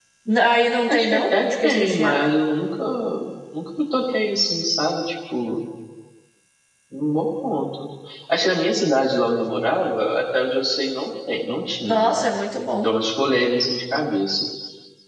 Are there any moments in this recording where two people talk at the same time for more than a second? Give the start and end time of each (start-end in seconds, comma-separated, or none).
0.9-2.2